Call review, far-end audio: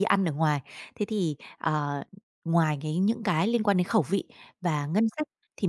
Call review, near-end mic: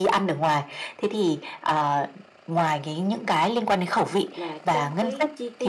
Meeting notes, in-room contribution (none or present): present